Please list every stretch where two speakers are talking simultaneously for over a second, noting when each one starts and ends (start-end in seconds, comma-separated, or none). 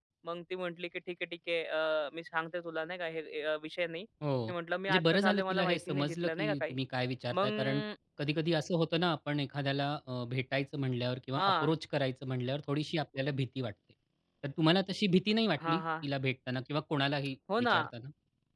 4.9-6.7